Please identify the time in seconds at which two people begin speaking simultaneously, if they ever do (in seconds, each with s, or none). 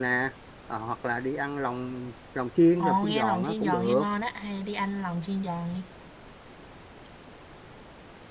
2.8 s